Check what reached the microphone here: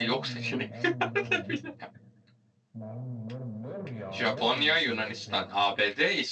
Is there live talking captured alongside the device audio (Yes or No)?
Yes